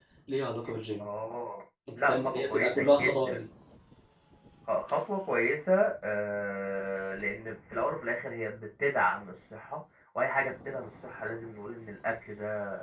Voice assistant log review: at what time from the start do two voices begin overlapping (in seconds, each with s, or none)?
1.9 s